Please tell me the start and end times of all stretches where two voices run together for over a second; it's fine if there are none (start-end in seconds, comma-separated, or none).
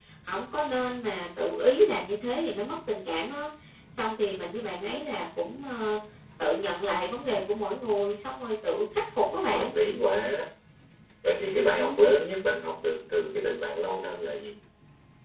none